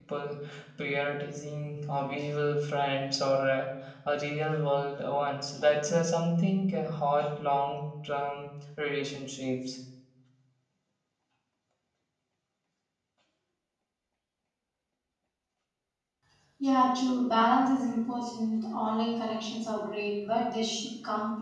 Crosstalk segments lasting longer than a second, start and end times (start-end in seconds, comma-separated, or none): none